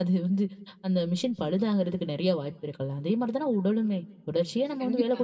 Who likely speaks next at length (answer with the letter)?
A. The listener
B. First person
B